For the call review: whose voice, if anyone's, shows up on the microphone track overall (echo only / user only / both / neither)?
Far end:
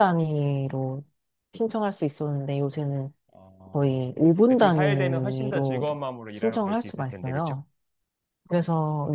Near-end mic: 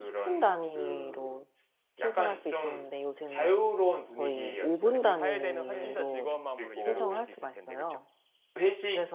both